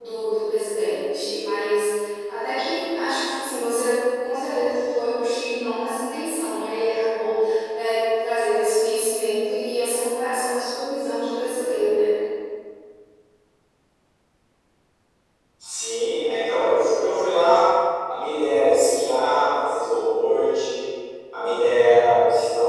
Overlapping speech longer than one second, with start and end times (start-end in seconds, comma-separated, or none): none